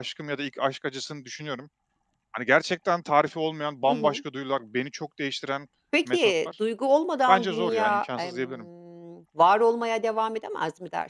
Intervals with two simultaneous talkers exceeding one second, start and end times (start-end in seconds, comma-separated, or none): 7.3-8.6